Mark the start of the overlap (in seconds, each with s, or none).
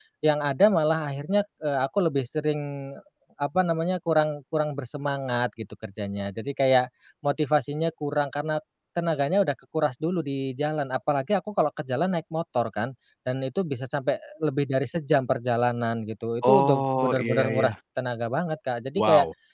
16.4 s